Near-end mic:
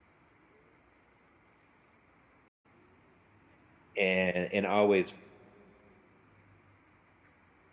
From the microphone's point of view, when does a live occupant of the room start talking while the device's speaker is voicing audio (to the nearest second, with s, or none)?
4 s